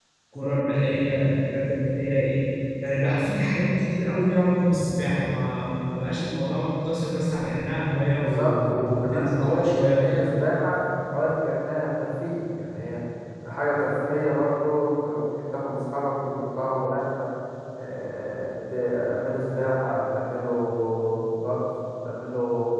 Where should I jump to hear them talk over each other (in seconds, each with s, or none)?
8.2 s